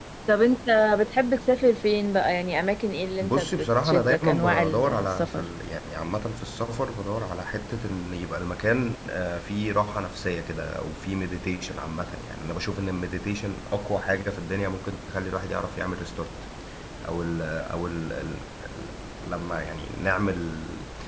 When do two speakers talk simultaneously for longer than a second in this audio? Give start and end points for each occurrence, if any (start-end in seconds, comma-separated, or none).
3.2-5.5